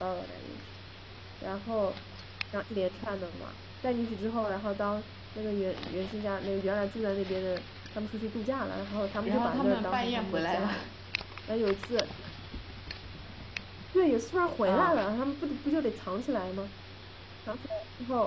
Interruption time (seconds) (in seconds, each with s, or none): 9.2 s